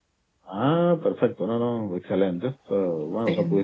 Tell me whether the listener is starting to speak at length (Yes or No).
No